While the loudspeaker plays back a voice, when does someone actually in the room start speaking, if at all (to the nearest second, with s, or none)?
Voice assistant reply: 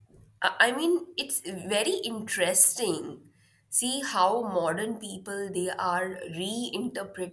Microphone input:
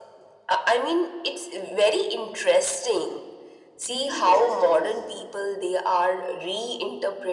4 s